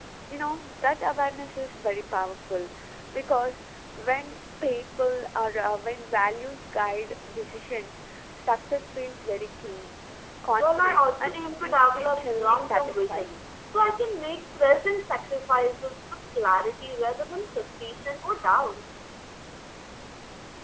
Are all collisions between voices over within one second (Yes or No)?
No